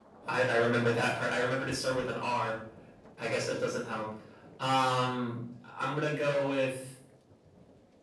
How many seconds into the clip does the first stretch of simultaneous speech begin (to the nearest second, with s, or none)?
none